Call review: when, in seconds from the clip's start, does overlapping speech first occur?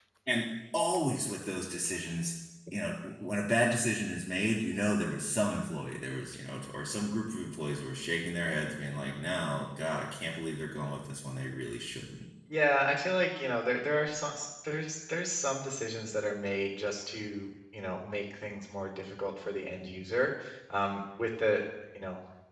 none

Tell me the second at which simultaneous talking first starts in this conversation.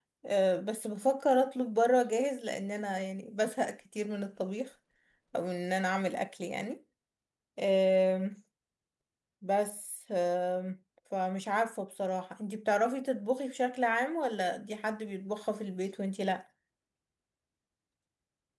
none

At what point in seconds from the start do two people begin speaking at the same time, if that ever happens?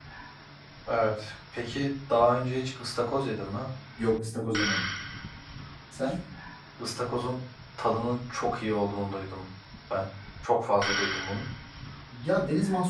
none

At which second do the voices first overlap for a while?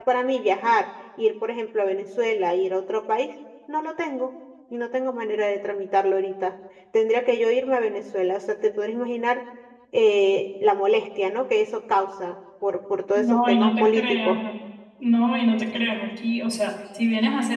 13 s

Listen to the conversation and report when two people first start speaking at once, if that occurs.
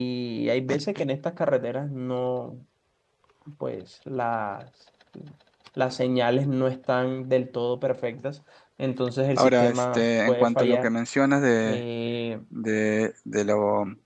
9 s

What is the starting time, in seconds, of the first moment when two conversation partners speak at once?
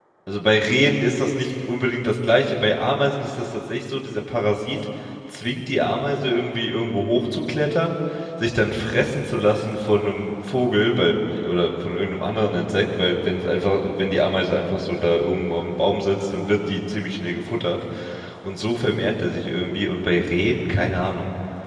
none

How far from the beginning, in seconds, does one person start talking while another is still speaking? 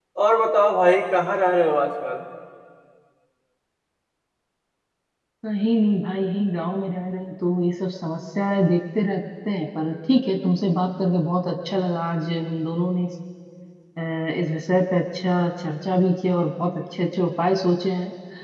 none

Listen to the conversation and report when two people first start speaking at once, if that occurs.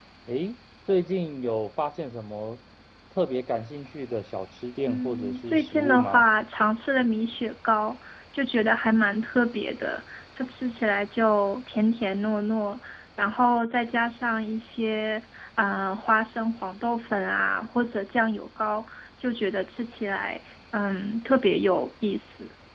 5 s

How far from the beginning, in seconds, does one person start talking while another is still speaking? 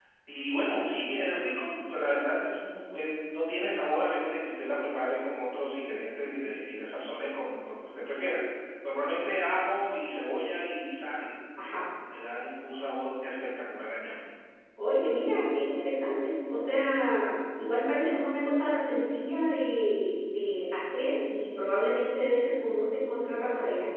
none

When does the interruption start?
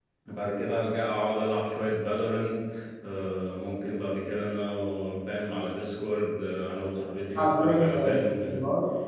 7 s

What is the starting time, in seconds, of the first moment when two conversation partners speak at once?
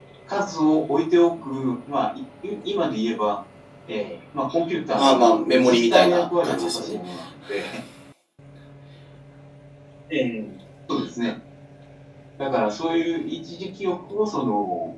5 s

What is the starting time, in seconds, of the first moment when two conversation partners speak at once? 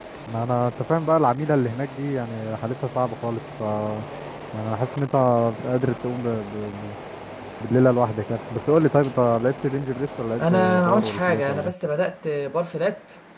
10 s

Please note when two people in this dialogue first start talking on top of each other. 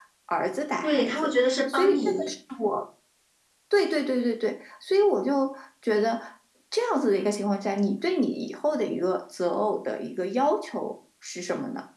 1 s

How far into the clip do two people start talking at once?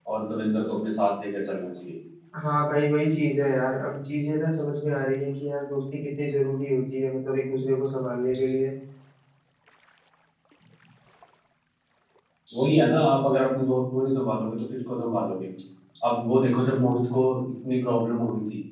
none

